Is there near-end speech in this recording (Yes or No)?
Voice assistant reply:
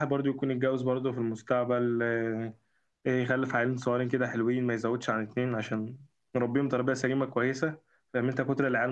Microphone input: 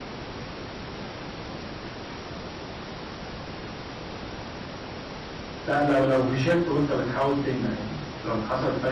Yes